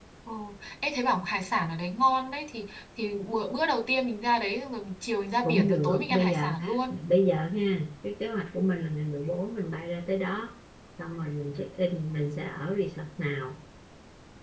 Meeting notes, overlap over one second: present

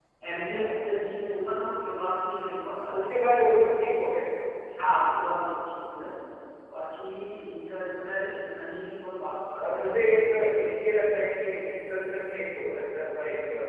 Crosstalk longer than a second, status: none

